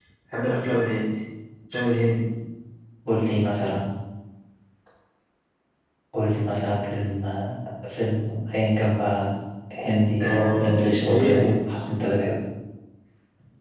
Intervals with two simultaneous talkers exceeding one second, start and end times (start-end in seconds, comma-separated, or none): 10.2-11.8